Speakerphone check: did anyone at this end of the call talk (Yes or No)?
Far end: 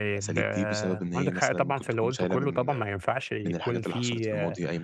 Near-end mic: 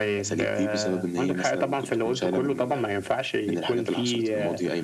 No